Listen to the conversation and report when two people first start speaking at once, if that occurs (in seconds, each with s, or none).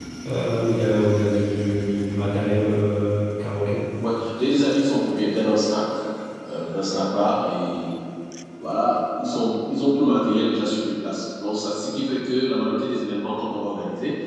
none